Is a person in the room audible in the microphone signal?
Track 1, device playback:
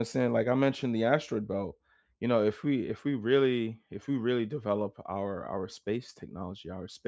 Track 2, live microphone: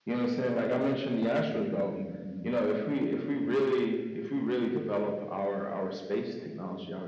Yes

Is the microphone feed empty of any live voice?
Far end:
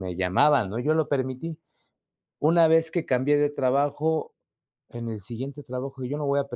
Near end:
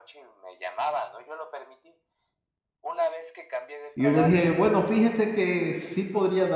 No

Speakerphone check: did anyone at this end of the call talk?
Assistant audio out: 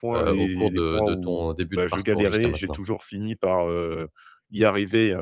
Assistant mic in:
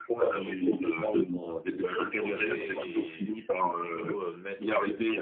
Yes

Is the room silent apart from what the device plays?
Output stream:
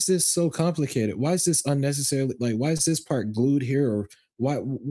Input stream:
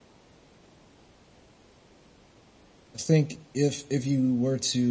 No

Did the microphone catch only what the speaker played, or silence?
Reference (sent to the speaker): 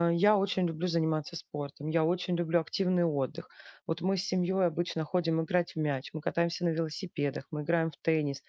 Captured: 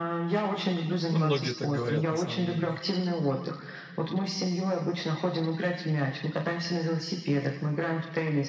No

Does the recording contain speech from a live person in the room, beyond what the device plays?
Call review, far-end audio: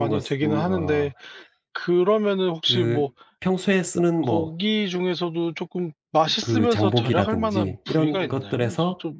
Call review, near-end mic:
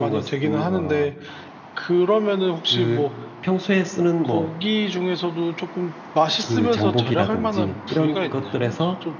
No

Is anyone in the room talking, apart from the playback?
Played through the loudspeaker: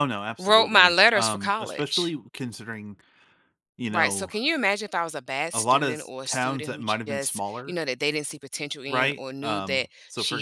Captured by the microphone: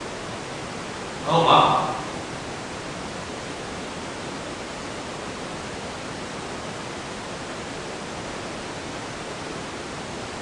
Yes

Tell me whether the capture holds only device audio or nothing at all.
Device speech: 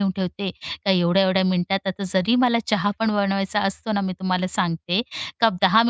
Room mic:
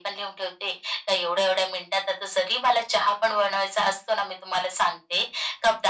Yes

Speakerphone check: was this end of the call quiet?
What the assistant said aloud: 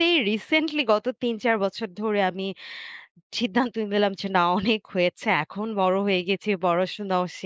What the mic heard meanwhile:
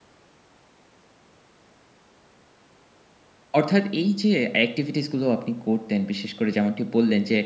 No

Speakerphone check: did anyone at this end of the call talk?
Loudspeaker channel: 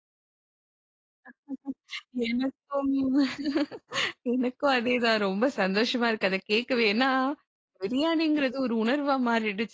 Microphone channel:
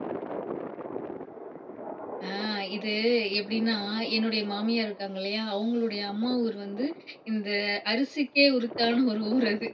Yes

